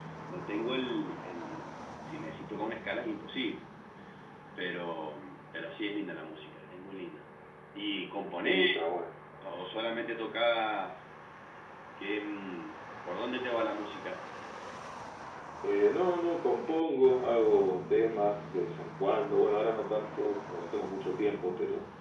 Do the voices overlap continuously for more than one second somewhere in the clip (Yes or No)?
No